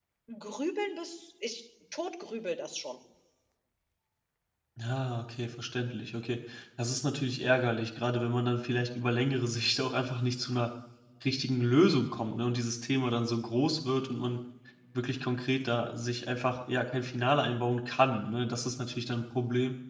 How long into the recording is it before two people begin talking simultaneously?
none

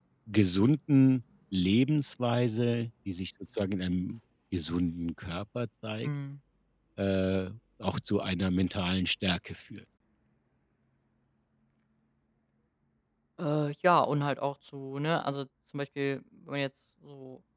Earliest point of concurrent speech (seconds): none

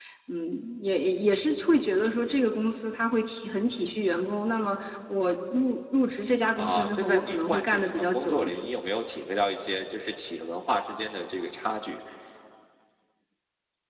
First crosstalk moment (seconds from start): 7 s

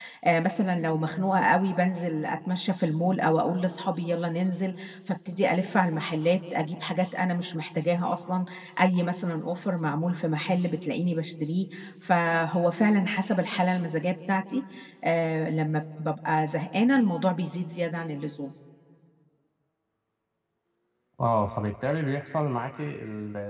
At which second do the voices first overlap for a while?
none

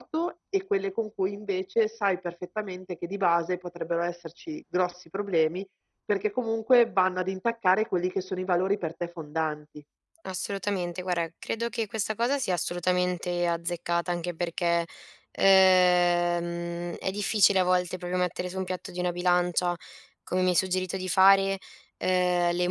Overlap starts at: none

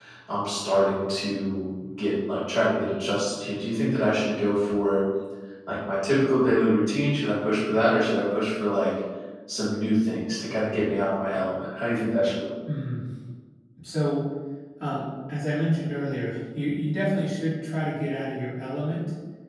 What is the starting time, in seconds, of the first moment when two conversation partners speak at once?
none

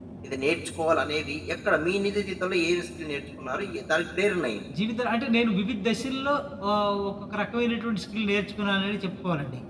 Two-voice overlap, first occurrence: none

